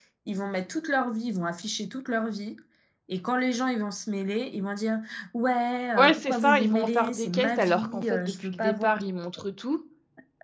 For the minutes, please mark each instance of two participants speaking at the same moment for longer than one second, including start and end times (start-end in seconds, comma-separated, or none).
6.0-8.9